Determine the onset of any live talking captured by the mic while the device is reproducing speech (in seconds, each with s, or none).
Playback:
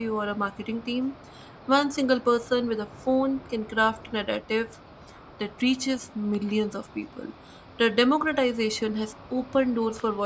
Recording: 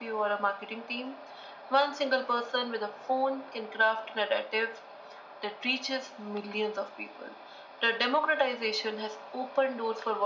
none